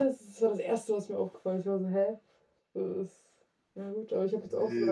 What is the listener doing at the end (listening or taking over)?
taking over